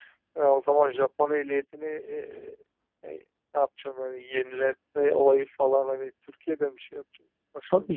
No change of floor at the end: No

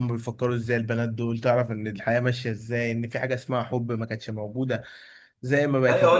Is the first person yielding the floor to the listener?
Yes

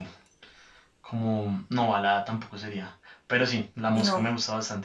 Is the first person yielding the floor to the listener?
No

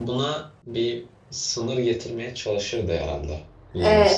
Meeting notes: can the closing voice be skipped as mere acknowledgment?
No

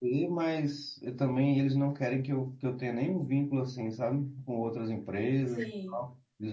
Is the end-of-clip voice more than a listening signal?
No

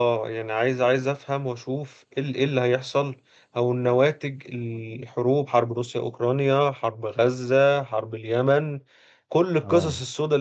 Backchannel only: Yes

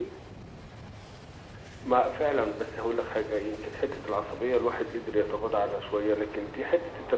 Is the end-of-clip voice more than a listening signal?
No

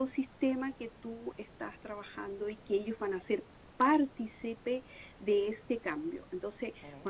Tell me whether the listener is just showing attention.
Yes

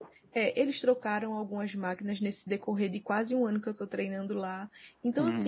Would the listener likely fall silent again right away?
Yes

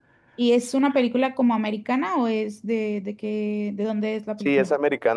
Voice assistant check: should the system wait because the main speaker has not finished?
No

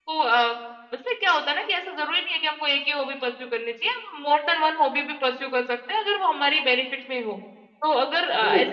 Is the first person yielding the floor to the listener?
No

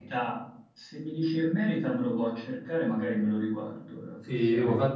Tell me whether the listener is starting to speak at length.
Yes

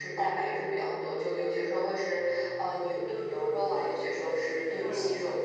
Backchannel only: No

